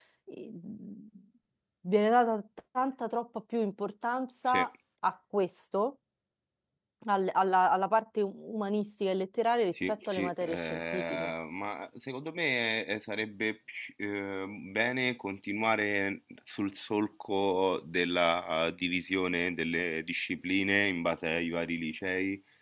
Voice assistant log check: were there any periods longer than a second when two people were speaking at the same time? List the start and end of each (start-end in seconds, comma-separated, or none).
9.7-11.3